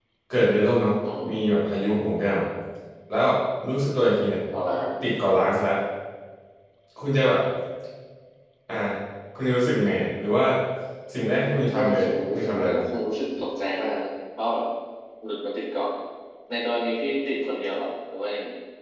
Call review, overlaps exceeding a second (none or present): present